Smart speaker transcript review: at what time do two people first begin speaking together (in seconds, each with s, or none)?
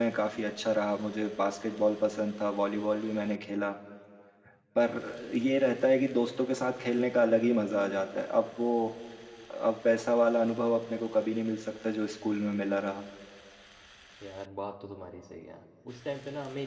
none